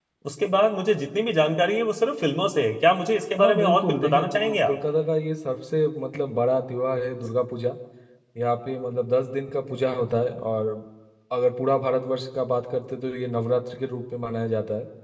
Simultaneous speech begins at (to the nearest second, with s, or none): 3 s